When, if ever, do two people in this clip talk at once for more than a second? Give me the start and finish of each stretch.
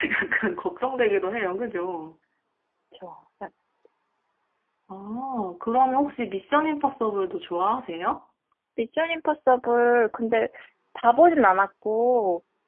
none

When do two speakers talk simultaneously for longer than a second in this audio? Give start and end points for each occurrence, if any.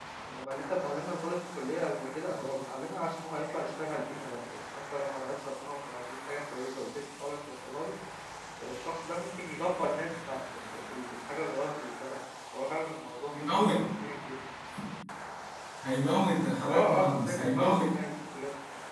16.7-17.9

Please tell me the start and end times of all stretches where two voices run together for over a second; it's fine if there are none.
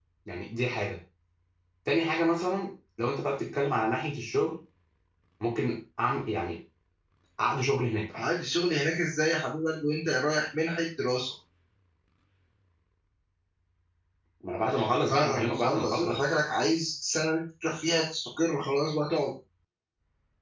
15.1-16.3

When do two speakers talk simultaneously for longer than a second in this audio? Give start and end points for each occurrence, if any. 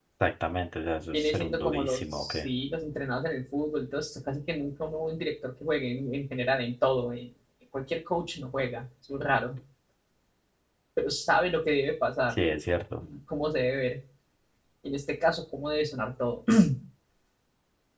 1.1-2.5

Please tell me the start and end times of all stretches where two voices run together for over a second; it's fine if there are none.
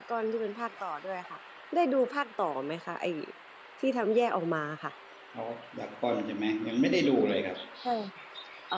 none

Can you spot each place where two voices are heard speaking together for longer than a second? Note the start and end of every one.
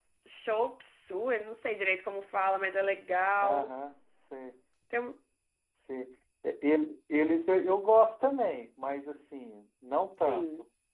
none

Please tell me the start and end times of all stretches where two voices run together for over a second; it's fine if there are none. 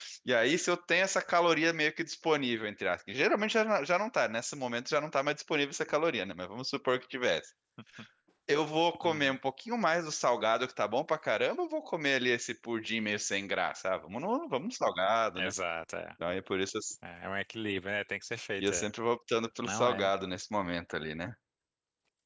none

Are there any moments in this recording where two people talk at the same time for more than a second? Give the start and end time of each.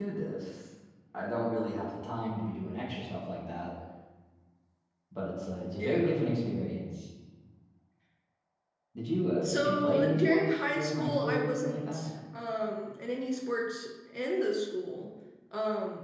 9.4-11.8

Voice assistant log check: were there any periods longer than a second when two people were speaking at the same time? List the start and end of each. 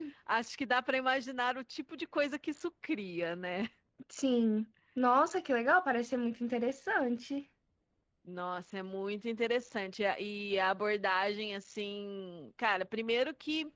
none

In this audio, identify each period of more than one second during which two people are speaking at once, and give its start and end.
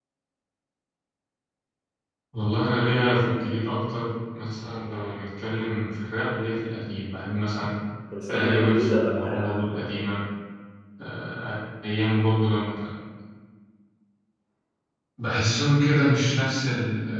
8.3-9.7

